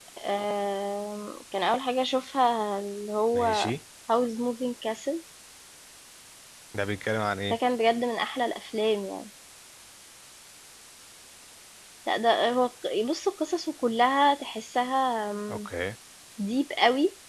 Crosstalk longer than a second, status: none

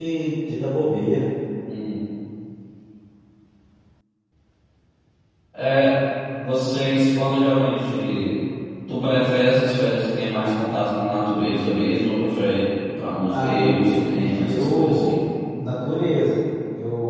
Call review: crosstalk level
present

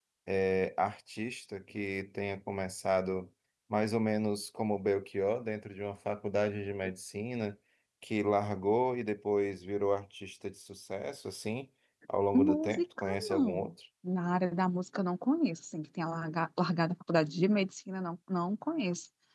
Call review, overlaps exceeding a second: present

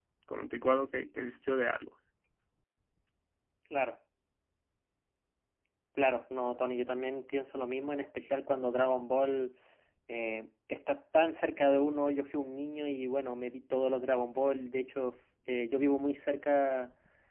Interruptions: none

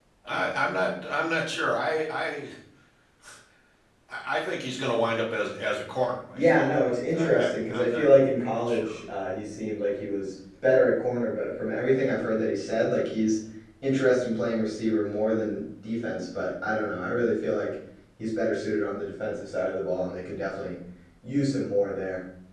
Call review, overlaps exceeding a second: present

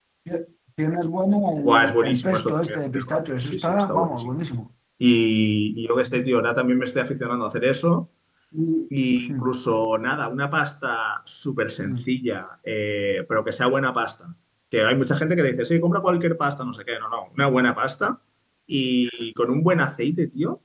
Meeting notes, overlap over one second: present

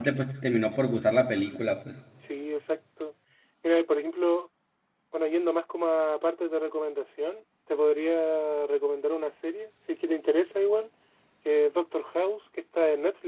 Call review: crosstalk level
none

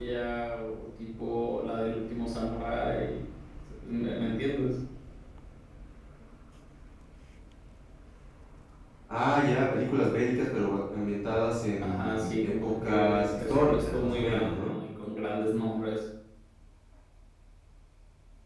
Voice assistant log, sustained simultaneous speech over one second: present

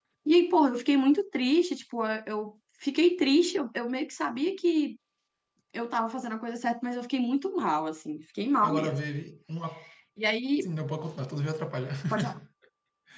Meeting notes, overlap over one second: none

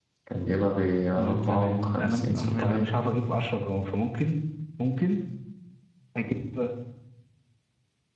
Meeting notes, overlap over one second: present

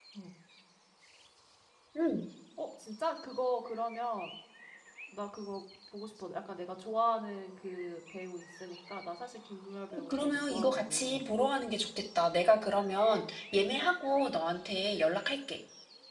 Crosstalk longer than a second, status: present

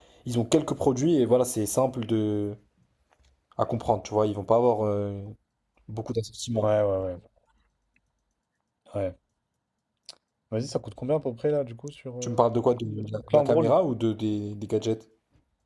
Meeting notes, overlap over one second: none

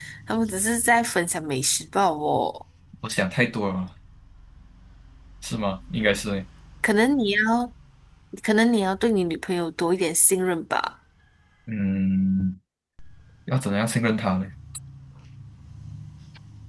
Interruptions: none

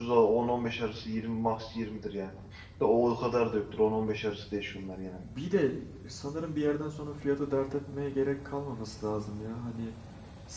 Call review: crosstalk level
none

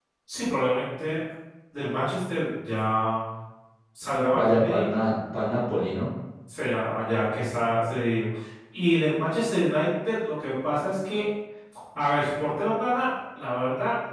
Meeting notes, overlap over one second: none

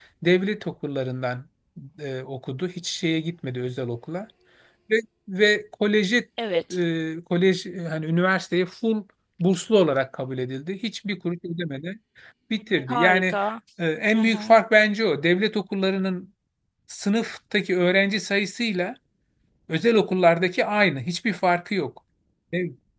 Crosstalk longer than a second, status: none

